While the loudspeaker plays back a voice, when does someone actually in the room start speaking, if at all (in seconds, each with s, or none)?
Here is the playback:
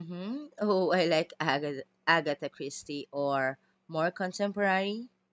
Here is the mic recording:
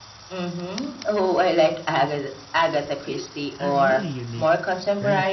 3.0 s